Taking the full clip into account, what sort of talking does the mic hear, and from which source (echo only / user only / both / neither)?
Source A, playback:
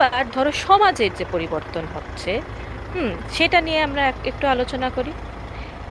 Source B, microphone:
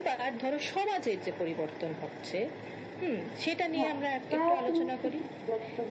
both